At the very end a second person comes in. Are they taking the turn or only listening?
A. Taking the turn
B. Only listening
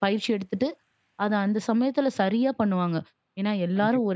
B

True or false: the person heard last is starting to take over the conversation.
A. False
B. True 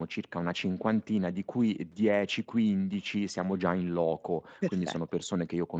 A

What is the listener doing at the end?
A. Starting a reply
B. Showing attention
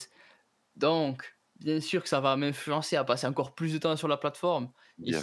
B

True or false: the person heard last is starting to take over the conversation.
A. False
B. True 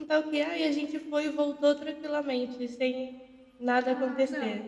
B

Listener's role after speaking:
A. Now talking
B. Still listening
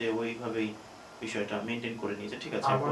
A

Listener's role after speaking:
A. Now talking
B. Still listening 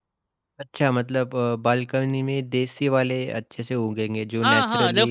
A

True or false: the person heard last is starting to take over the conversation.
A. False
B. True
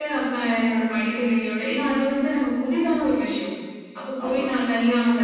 A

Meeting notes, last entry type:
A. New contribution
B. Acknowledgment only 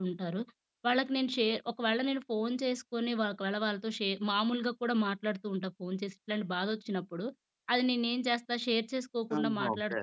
B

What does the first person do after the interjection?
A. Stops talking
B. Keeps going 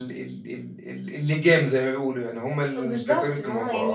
A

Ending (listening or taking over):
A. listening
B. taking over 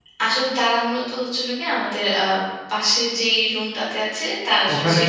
A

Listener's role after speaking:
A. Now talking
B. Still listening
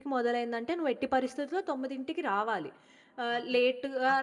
B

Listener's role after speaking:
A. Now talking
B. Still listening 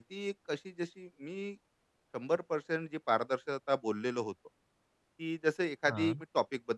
B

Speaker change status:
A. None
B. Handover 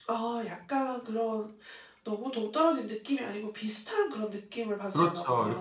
B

